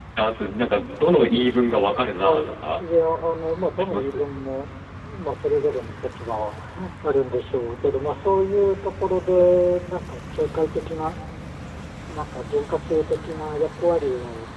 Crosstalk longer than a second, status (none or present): none